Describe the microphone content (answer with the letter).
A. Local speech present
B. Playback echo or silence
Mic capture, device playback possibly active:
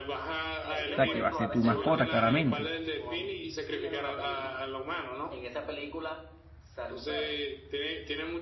A